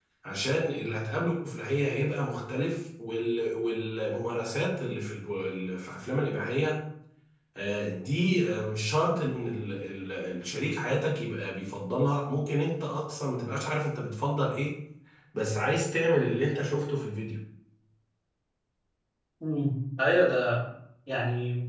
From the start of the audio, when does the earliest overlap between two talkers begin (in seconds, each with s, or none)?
none